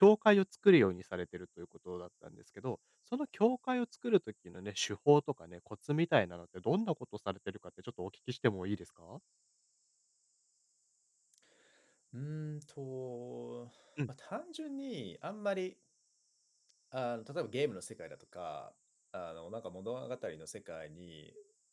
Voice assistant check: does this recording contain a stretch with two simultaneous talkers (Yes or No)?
No